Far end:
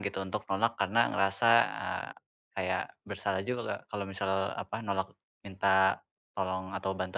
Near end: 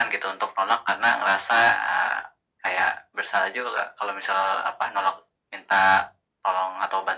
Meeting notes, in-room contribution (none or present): none